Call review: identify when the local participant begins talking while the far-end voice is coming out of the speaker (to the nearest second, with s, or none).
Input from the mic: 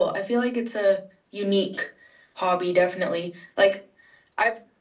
none